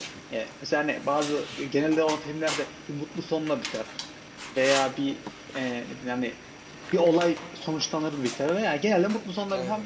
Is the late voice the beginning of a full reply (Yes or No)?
No